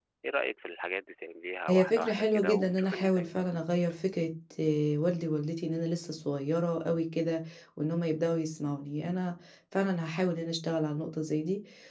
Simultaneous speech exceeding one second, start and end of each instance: 1.7-3.3

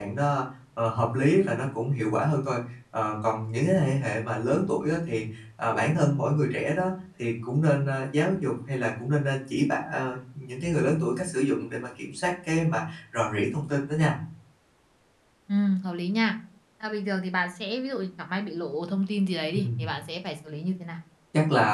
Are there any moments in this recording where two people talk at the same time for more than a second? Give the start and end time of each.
none

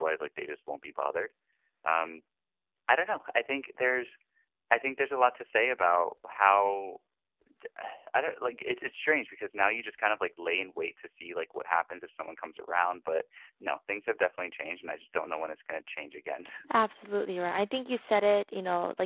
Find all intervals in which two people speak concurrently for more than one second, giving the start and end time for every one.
none

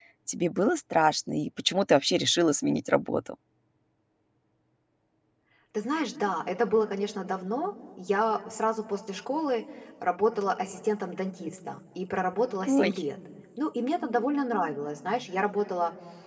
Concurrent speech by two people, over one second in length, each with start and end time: none

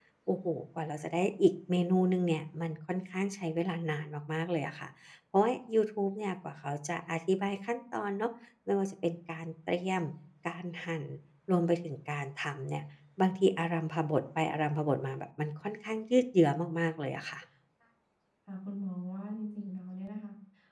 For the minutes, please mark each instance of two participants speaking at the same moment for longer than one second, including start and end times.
none

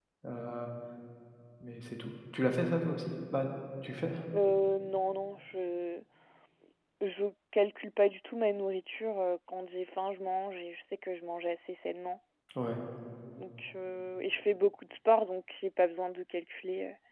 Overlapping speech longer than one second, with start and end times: none

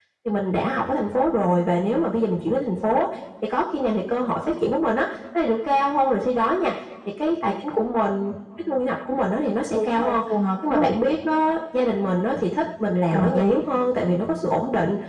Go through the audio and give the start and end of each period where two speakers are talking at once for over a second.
none

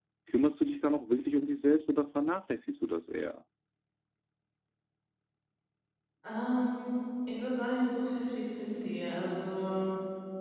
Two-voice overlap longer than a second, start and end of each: none

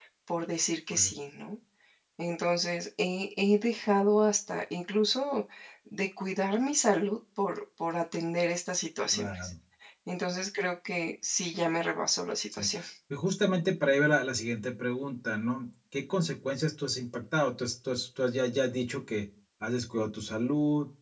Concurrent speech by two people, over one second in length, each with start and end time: none

